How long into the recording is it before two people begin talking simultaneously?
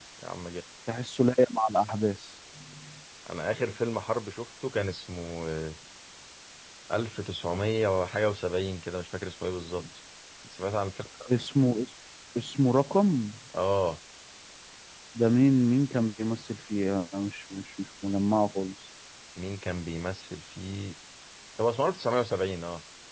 none

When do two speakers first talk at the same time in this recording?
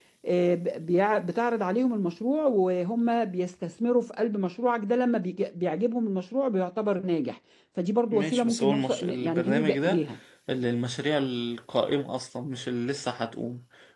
8.1 s

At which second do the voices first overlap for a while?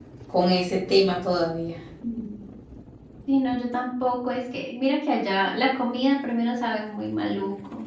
none

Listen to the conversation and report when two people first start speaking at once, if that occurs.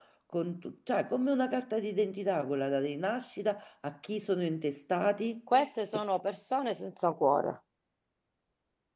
none

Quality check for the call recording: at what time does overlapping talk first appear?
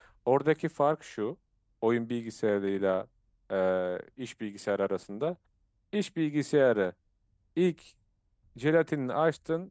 none

